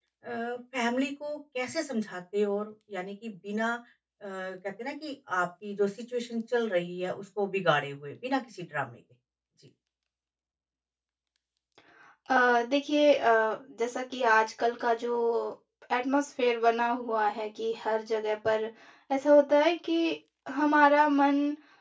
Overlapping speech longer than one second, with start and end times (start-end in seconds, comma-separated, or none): none